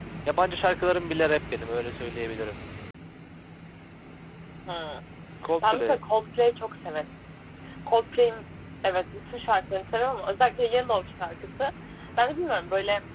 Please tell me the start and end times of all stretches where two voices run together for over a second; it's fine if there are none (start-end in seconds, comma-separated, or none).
none